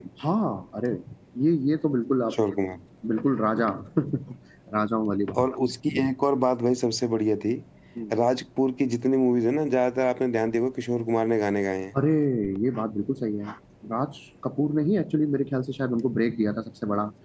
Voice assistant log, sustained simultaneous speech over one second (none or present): none